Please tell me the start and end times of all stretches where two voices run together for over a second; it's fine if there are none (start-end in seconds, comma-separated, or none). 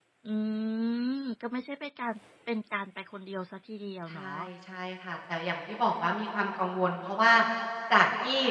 none